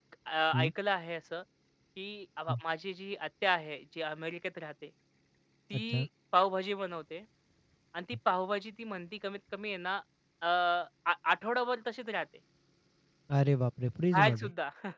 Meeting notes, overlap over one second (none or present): none